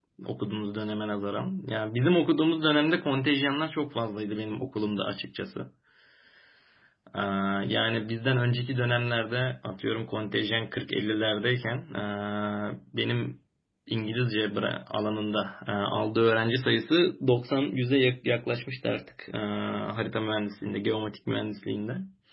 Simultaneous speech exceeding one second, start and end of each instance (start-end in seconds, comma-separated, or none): none